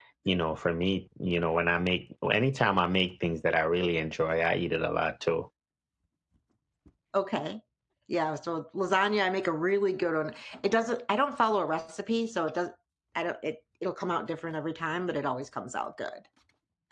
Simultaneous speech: No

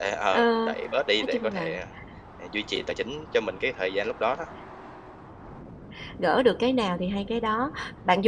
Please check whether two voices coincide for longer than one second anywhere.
No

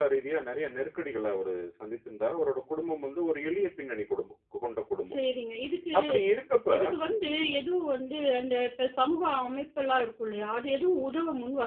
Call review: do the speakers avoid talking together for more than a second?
Yes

